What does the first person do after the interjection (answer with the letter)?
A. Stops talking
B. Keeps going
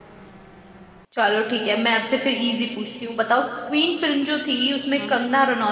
B